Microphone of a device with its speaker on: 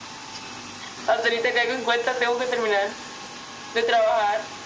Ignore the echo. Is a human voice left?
No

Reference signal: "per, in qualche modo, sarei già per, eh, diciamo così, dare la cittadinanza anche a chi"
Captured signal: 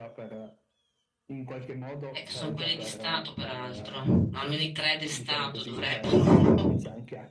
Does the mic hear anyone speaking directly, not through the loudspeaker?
Yes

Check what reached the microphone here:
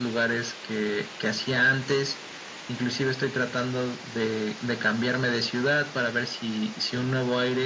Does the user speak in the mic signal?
No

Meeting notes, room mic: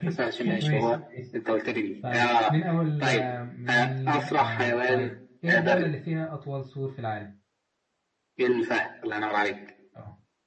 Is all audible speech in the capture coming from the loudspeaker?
No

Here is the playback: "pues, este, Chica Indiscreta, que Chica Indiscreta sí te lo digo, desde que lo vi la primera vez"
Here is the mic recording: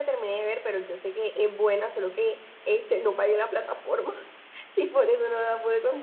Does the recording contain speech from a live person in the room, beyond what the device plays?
Yes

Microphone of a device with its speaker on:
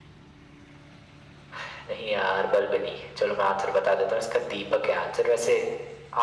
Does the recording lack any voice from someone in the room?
Yes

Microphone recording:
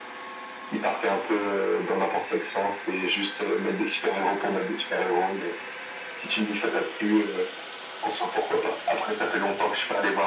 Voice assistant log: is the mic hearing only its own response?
Yes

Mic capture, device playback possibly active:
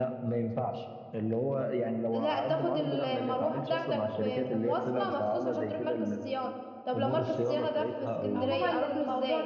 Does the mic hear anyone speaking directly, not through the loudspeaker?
Yes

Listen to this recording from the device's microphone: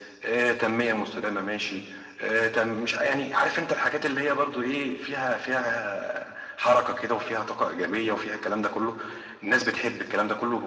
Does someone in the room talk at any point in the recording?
No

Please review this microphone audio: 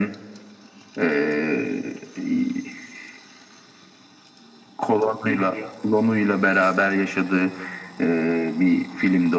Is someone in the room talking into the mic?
No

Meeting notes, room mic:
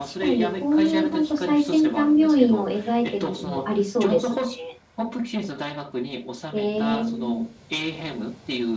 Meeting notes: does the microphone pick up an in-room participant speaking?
Yes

